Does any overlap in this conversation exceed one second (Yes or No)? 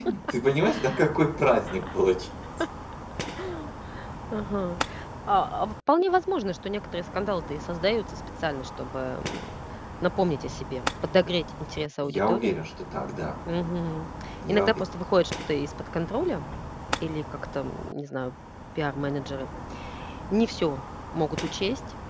No